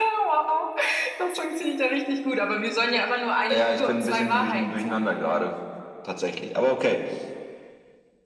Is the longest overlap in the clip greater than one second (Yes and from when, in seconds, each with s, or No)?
Yes, from 3.5 s